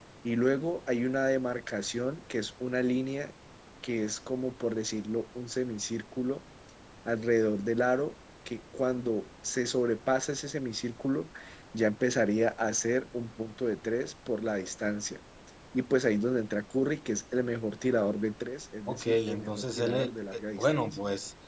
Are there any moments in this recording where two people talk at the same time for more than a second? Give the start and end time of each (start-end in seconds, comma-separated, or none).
18.9-21.0